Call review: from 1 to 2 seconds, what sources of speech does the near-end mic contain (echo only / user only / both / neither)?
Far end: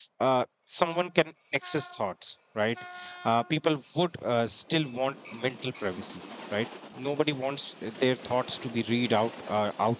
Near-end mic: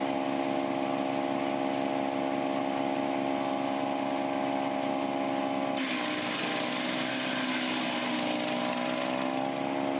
neither